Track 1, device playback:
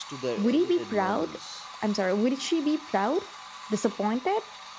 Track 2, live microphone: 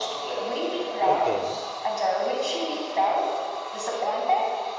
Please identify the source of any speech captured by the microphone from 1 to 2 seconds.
both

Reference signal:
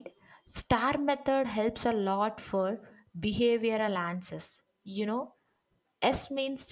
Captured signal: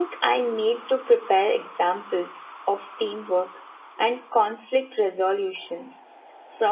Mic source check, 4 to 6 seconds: user only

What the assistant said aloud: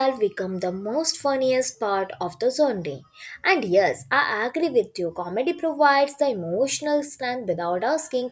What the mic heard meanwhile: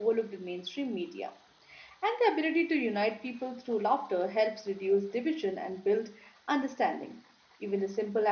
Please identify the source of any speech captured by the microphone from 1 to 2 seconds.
user only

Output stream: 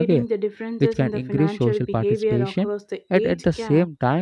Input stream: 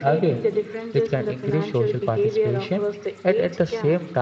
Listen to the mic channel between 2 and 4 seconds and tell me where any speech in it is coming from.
echo only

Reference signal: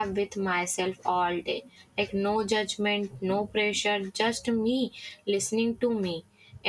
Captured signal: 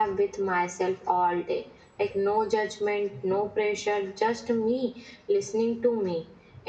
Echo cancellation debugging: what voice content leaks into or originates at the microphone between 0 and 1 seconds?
echo only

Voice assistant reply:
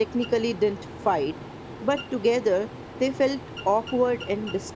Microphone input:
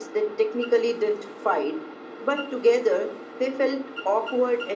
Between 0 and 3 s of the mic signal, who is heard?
echo only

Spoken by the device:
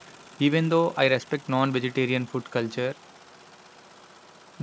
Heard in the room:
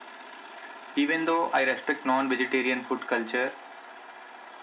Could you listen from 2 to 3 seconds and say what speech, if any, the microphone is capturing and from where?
echo only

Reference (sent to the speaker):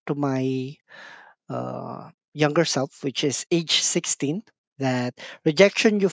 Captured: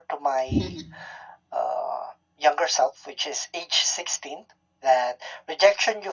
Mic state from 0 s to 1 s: both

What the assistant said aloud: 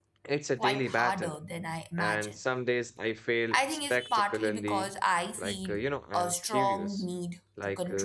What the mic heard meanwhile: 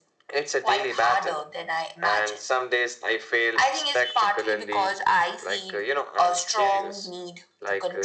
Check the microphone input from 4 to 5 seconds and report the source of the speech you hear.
echo only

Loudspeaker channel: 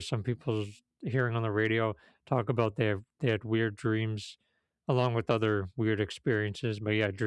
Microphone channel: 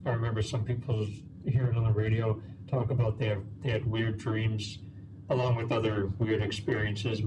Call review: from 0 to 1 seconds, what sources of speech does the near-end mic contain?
echo only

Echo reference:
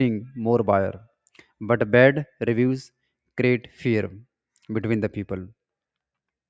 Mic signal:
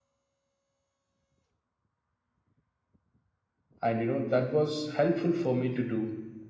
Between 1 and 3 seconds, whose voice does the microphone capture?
neither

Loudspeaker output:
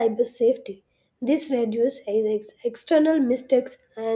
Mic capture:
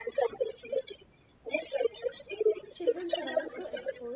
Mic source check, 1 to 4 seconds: both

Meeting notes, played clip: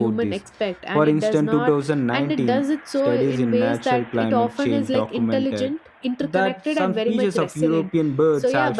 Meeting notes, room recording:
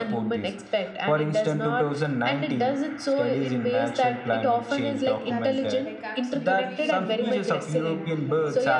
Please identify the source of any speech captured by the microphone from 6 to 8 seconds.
both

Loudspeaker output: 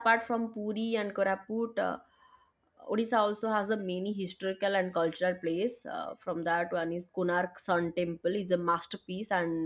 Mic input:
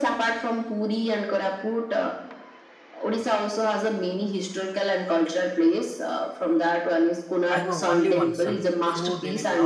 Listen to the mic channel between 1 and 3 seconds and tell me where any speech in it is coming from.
echo only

